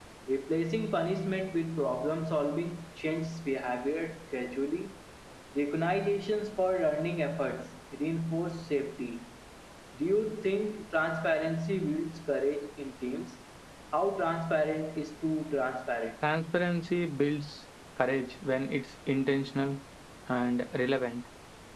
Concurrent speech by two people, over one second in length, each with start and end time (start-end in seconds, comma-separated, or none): none